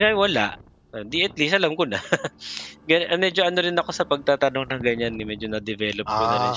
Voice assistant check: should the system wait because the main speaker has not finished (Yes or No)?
No